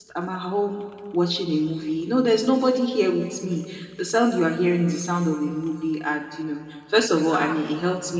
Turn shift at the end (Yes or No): No